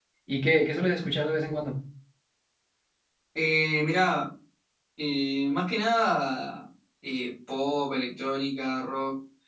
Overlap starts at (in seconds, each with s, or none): none